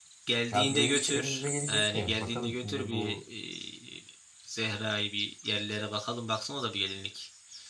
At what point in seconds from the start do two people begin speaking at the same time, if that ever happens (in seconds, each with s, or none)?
0.5 s